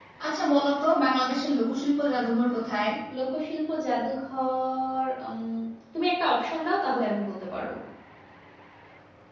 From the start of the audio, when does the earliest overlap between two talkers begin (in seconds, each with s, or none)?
none